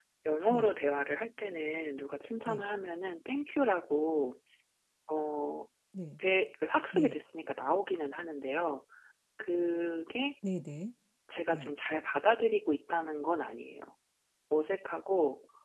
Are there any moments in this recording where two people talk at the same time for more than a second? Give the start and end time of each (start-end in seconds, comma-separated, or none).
none